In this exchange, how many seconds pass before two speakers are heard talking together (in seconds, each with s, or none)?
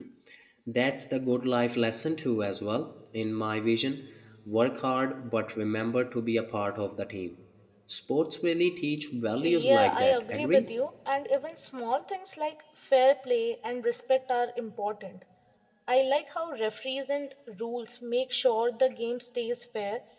9.4 s